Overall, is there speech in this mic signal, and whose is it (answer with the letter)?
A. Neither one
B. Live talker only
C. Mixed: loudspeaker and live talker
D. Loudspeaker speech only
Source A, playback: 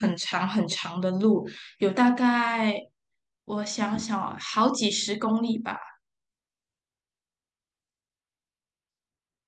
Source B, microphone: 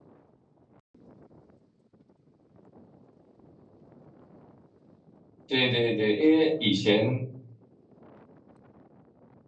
B